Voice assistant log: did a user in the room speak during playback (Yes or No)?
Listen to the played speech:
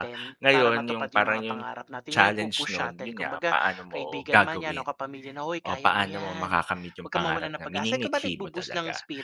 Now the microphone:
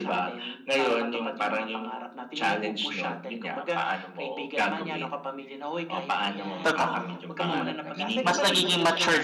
Yes